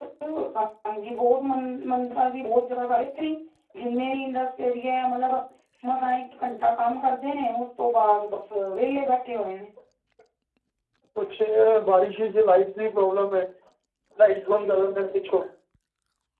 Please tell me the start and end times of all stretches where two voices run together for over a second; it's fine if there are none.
none

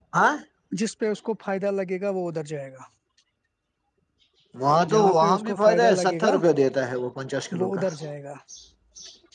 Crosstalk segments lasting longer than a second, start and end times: 4.9-6.3

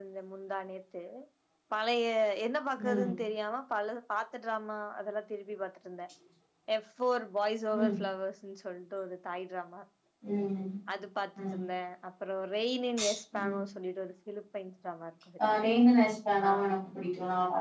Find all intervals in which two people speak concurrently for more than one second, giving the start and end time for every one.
none

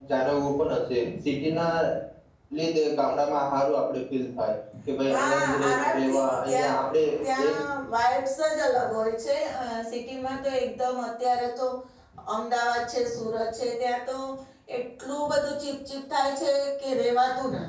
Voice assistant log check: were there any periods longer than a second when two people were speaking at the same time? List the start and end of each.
5.1-6.8

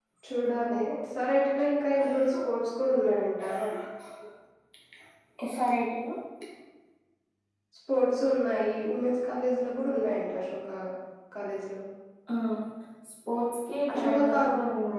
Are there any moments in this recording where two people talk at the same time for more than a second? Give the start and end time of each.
none

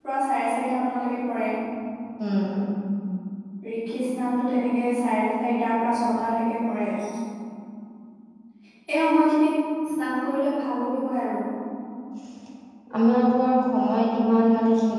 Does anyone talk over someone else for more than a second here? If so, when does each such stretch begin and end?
none

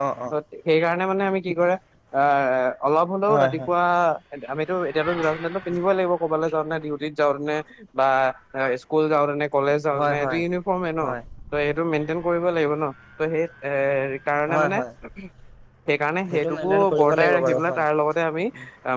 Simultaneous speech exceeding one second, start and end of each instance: 16.3-17.8

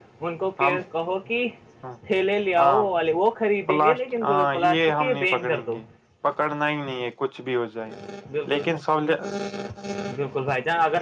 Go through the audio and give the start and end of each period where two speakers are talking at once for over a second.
3.7-5.8

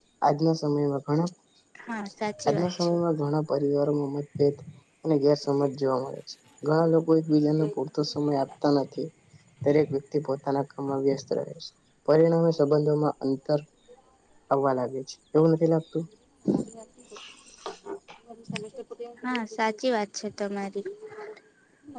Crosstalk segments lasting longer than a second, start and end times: none

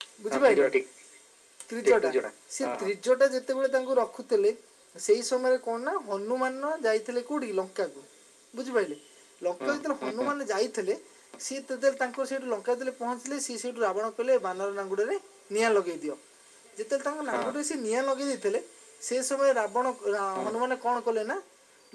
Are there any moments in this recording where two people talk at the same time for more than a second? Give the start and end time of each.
none

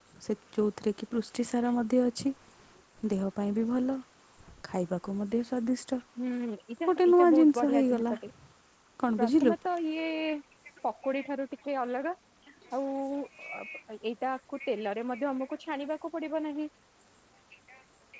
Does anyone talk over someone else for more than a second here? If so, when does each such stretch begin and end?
6.9-8.1

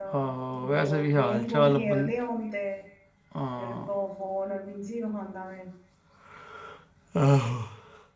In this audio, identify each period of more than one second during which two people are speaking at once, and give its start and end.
0.6-2.1

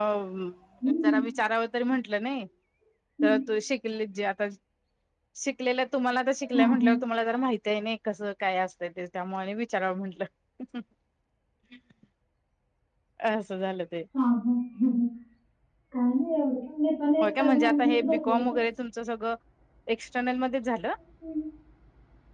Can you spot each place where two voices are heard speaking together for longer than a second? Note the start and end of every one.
17.2-18.4

